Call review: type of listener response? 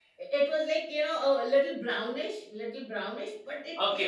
taking over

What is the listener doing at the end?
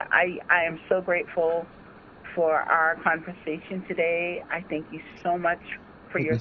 listening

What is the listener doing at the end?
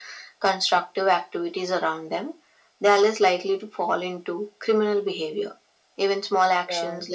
listening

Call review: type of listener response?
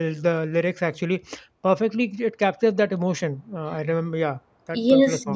taking over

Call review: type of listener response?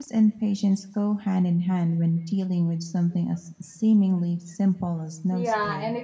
taking over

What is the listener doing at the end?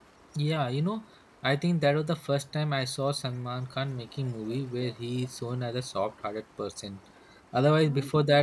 listening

